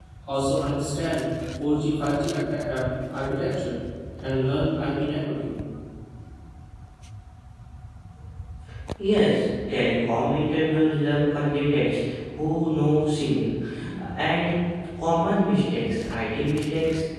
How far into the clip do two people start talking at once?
none

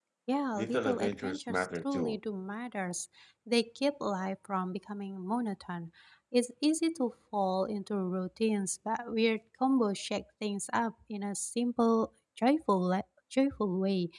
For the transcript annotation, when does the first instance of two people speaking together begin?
0.5 s

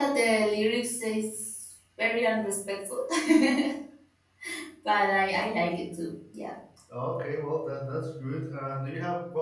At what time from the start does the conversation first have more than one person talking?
none

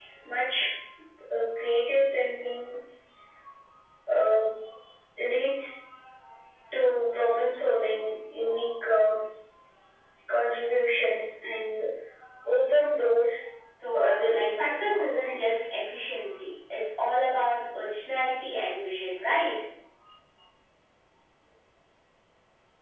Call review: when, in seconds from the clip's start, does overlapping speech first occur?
13.9 s

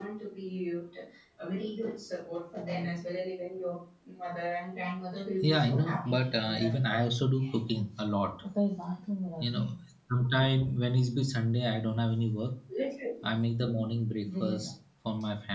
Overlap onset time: 5.4 s

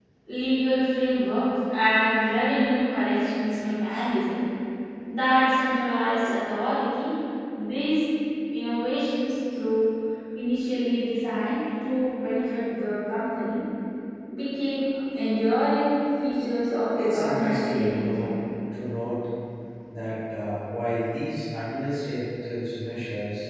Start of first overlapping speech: 16.9 s

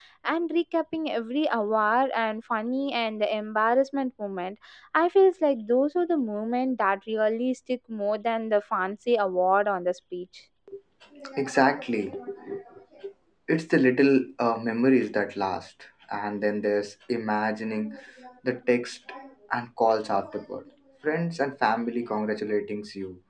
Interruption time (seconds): none

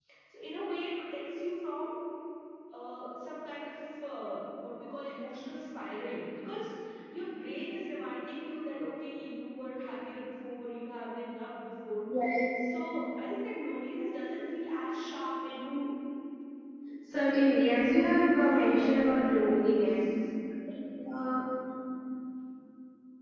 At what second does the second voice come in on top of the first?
17.2 s

